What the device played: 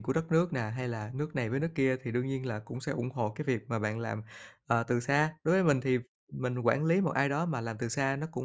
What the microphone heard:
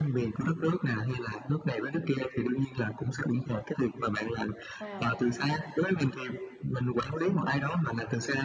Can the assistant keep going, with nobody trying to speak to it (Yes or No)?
No